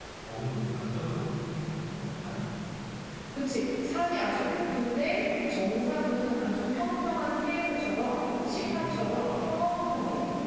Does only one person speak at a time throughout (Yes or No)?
No